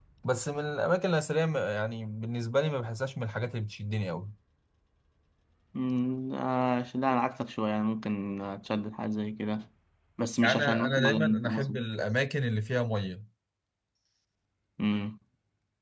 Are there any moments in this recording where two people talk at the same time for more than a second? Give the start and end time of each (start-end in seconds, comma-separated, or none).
10.4-11.7